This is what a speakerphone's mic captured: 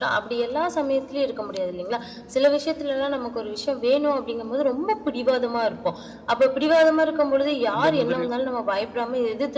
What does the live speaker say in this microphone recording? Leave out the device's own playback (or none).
அந்த மாதிரி.